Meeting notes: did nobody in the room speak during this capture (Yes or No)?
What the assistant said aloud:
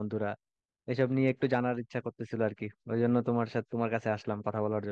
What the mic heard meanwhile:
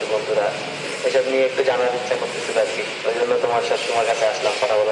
Yes